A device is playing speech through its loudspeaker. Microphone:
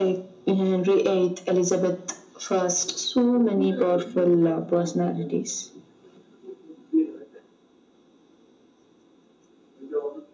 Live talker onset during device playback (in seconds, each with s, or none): none